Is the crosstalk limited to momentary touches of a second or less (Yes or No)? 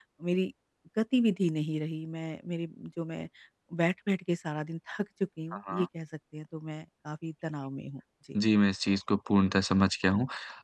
Yes